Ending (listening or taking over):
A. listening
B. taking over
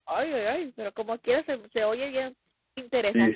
B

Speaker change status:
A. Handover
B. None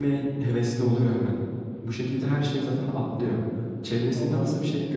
B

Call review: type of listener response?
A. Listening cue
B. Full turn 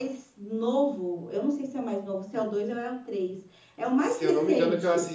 B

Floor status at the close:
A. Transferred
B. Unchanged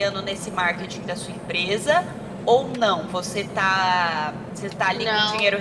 B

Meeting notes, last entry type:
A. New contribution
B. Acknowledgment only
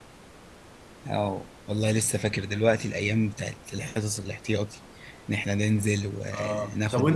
A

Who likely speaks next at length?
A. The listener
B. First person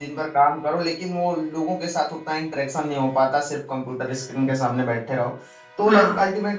B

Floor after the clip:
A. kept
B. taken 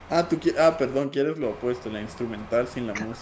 B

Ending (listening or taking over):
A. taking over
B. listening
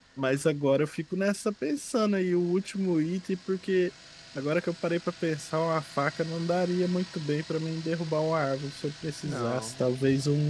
B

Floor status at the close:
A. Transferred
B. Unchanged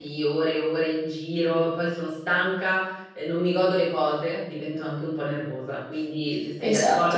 B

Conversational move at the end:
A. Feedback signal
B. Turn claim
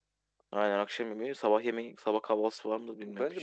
B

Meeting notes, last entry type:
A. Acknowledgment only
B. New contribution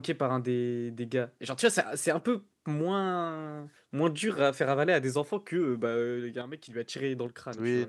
B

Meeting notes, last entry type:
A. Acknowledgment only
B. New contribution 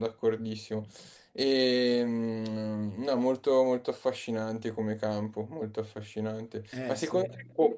A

